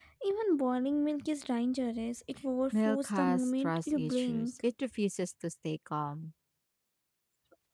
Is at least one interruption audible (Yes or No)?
Yes